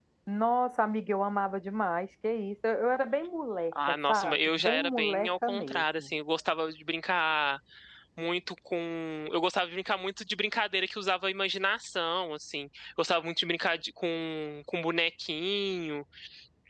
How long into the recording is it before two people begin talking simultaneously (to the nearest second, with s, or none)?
4 s